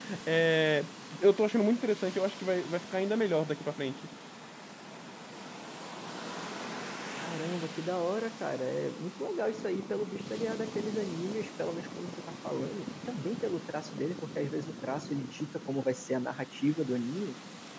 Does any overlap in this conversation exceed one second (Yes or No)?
No